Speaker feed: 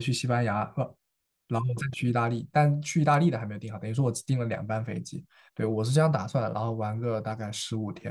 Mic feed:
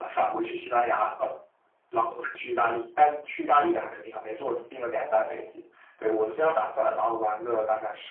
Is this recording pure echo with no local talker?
No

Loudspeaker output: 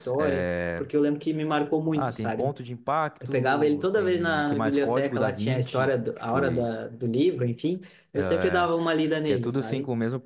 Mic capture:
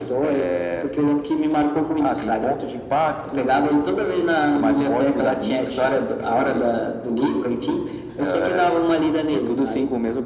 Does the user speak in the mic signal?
No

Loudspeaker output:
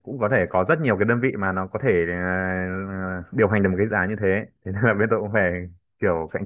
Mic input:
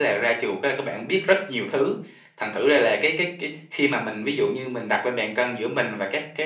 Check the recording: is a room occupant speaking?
Yes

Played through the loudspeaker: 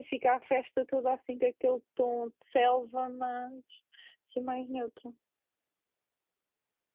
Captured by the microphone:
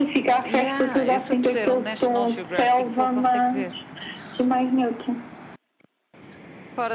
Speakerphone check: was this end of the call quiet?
No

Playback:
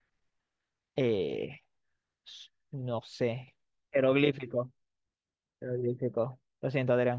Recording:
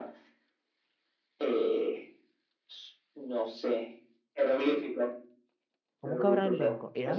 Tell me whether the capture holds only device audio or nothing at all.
No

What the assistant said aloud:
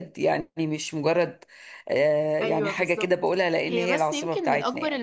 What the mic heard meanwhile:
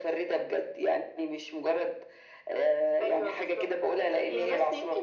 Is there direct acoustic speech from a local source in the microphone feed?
No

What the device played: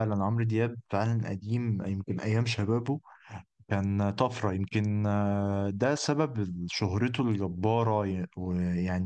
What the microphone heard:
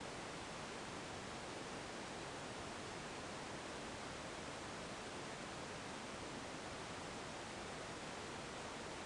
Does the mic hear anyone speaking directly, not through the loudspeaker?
No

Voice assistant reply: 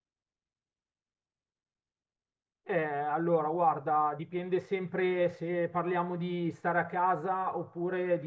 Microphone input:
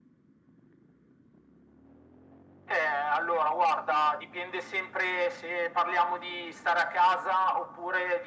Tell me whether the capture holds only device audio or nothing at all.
Yes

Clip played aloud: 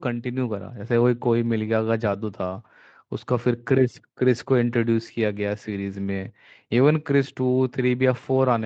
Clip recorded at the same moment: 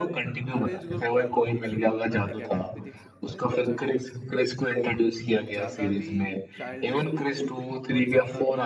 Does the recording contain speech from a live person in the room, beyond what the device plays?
Yes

